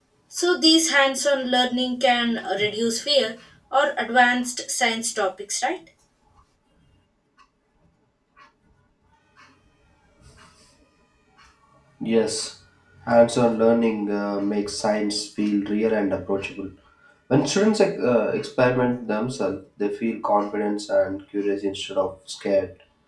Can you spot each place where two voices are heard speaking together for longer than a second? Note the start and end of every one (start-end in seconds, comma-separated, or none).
none